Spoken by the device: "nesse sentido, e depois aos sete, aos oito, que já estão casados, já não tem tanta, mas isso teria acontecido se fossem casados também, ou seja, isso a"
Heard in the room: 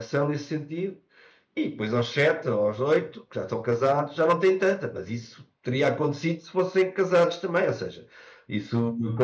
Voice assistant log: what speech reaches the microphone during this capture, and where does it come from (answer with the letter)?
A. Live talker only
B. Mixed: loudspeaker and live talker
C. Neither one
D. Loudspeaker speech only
D